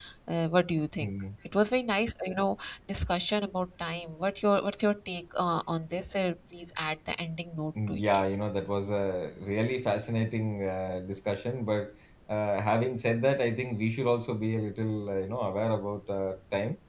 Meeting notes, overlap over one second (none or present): none